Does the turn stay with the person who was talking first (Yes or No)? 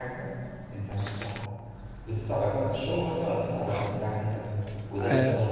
No